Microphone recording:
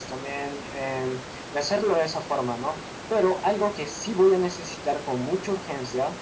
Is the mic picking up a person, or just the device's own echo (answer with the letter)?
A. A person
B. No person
B